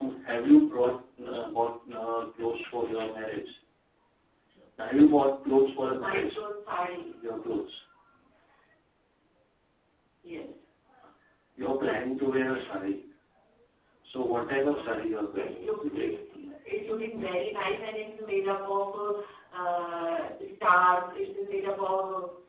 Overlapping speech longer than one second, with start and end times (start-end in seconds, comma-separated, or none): 14.6-16.1